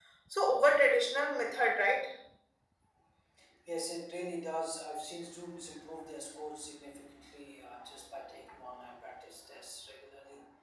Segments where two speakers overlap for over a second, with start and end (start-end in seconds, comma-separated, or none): none